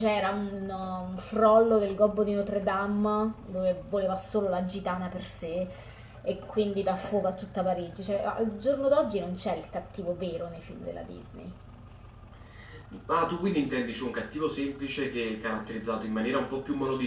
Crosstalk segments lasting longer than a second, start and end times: none

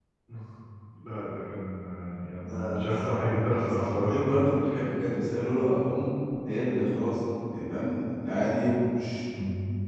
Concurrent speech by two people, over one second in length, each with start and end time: 2.4-4.2

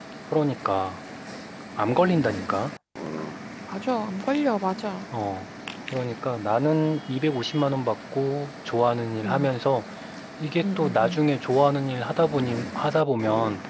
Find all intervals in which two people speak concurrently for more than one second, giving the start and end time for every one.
none

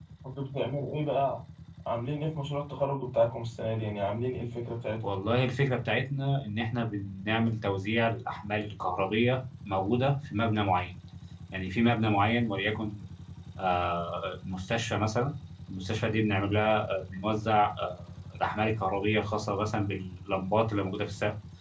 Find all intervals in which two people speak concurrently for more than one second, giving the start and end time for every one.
none

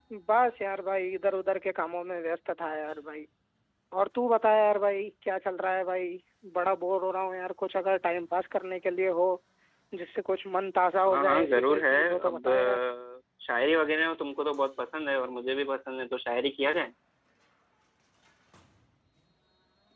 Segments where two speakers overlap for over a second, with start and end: 11.1-12.8

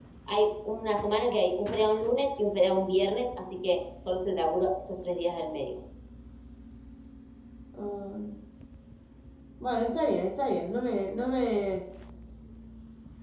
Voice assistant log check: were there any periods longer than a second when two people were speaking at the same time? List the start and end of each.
none

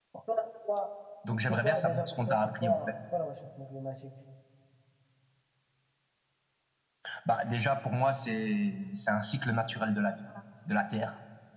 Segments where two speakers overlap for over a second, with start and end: 1.4-2.8

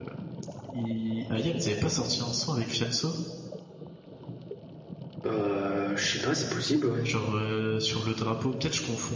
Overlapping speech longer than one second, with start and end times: none

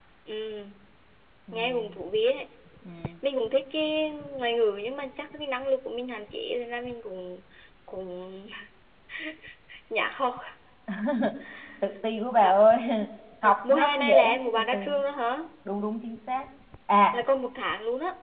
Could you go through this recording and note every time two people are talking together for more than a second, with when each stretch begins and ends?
13.4-14.9

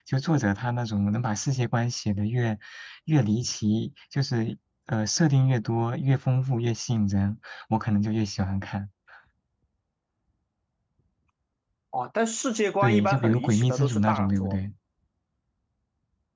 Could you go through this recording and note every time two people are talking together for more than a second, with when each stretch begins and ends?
12.8-14.6

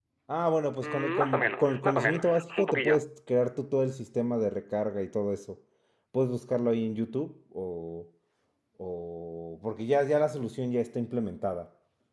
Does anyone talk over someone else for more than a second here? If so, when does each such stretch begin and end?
0.8-3.0

